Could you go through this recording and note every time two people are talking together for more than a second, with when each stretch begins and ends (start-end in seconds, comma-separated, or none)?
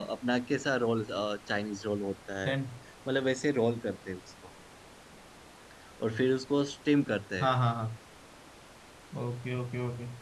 none